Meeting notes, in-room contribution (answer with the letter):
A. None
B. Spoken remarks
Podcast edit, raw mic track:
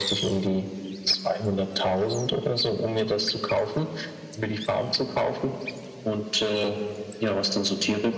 A